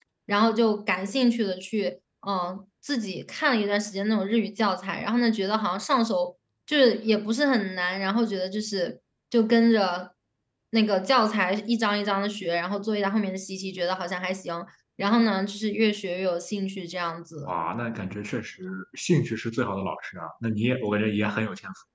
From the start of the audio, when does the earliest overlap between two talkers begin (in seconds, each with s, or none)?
none